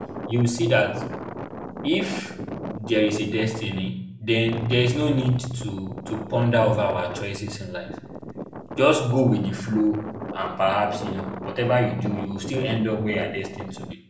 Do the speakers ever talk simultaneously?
No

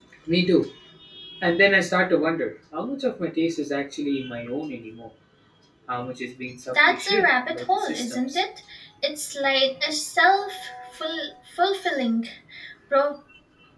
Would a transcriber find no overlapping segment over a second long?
No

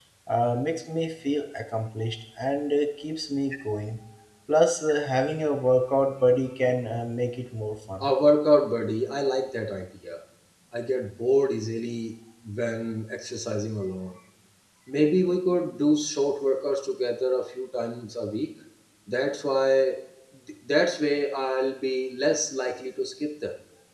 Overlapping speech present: No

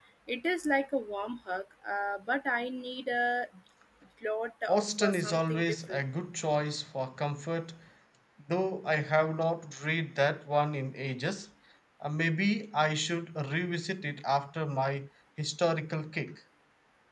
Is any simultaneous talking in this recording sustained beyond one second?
Yes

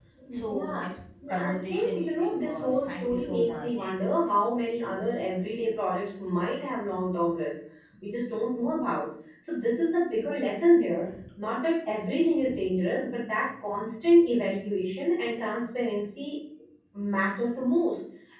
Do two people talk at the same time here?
Yes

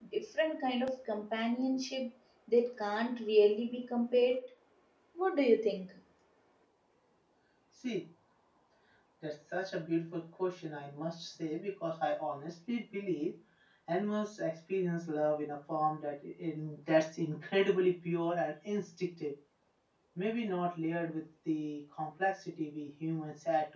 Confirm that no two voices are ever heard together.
Yes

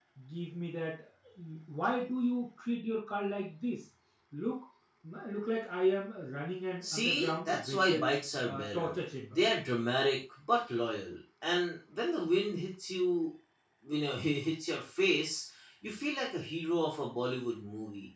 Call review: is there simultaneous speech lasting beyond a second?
Yes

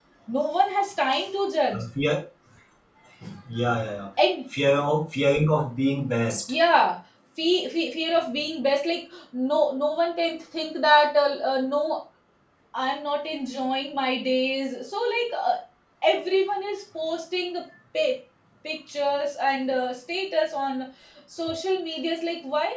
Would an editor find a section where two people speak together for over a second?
No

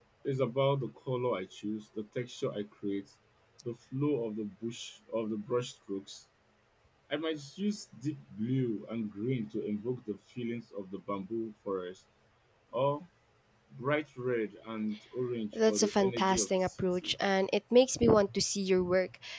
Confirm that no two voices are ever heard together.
No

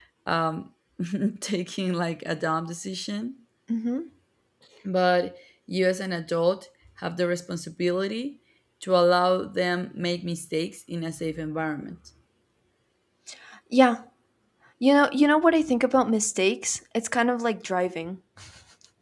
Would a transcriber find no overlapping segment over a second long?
Yes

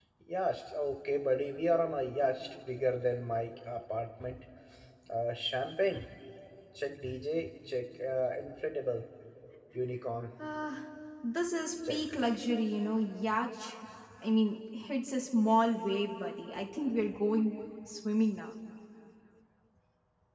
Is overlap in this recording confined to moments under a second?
Yes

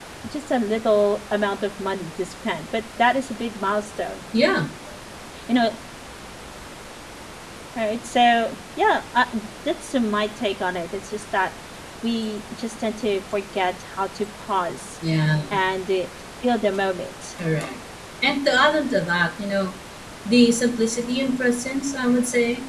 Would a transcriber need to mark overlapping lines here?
No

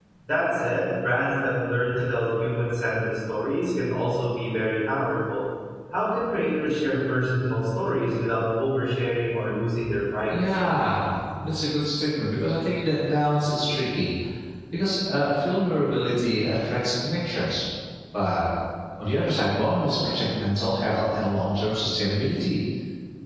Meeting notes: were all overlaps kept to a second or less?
Yes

